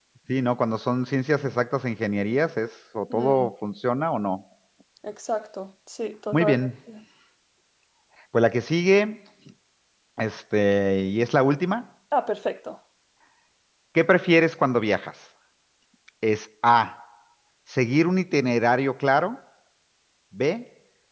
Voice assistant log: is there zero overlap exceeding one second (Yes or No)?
Yes